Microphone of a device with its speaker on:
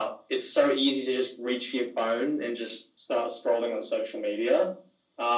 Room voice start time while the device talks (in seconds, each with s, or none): none